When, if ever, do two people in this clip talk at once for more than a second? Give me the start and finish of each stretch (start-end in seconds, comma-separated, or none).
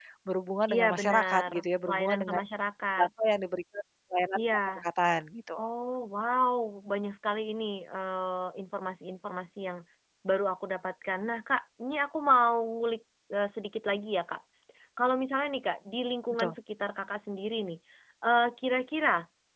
0.7-2.4